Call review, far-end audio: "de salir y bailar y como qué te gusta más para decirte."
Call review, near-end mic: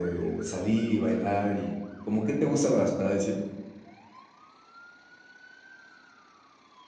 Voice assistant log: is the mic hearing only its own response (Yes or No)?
Yes